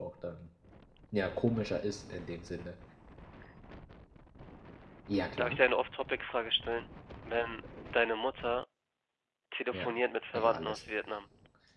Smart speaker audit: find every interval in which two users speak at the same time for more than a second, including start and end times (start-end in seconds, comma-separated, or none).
none